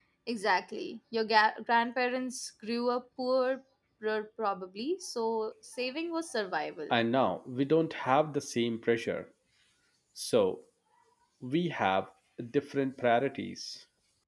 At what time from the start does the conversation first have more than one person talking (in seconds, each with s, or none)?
none